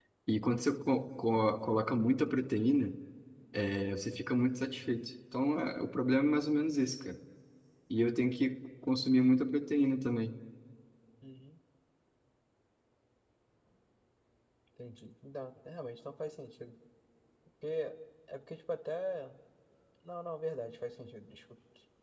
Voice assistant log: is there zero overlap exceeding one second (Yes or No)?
Yes